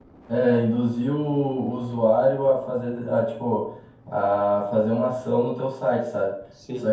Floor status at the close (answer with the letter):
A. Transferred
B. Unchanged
B